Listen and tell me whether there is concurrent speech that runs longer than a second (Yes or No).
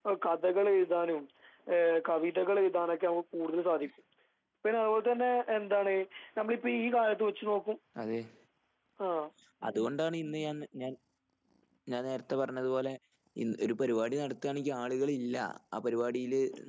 No